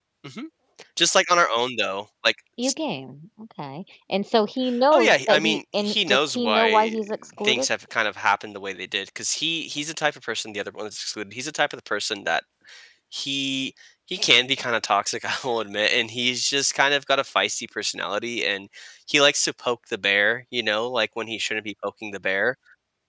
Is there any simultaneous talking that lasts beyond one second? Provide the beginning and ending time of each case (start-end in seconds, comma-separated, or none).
4.9-7.0